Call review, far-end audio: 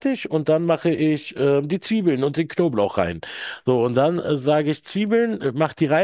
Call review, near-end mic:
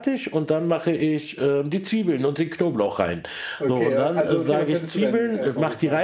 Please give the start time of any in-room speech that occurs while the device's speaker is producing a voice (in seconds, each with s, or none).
3.6 s